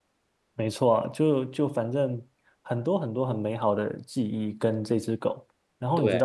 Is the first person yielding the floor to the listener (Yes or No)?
No